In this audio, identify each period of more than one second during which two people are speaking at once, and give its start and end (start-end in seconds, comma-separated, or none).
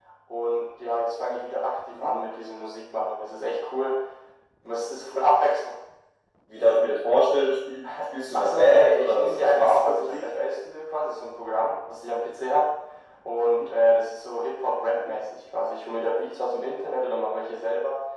8.3-10.3